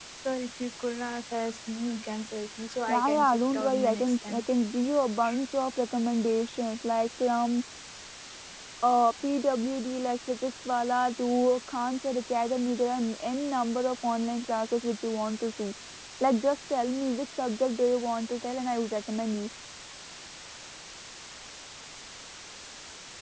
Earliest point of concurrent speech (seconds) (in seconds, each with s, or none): 2.9 s